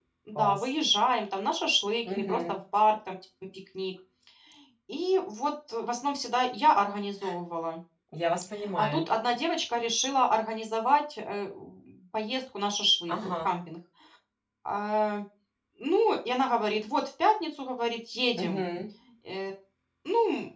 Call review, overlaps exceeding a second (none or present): none